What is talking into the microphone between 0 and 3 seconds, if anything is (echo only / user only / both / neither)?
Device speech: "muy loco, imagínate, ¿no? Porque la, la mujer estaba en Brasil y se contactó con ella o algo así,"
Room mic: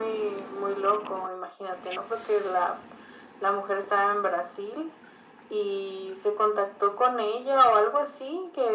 echo only